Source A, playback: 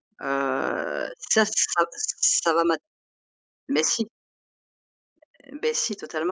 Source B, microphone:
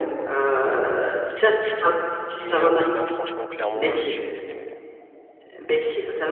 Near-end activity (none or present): present